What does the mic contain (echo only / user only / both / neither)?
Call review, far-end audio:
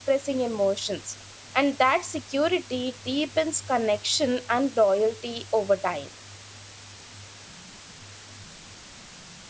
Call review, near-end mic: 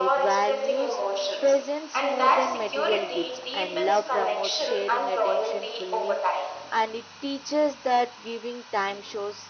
both